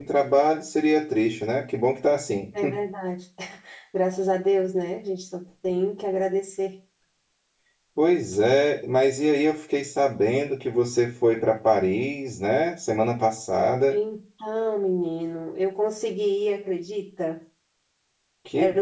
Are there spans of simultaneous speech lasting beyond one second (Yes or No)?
No